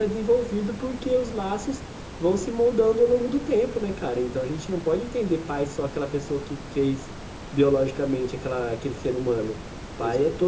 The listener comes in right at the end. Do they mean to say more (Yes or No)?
No